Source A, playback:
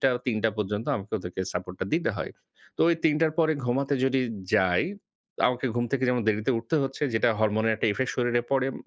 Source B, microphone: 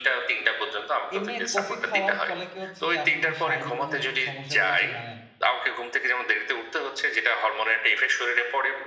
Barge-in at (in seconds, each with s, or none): 1.1 s